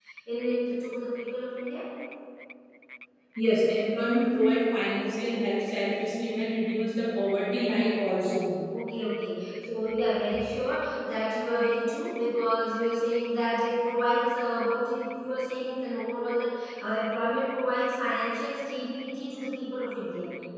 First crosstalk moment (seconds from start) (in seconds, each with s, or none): none